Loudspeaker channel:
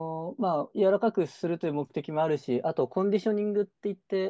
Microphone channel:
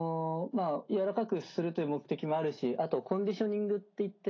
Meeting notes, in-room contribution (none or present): none